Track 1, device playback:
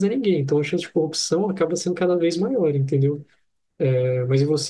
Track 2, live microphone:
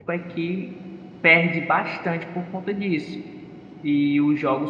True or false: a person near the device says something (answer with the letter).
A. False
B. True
B